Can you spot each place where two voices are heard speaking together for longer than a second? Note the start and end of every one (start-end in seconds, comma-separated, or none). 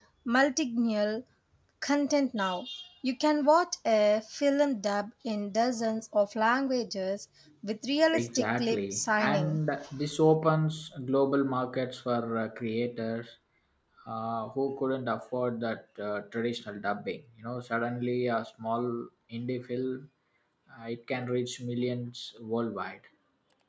8.1-9.6